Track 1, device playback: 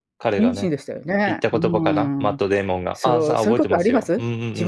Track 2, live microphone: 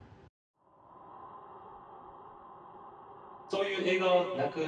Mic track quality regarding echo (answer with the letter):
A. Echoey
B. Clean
B